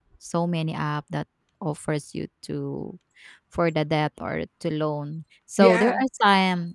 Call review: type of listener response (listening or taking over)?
listening